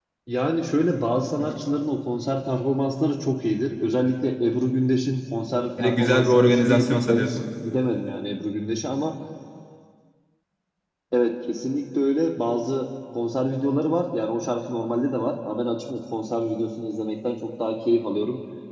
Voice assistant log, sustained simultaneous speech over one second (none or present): present